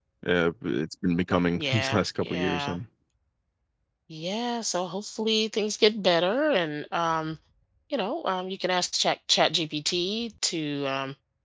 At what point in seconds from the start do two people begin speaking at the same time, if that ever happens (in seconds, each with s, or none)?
1.6 s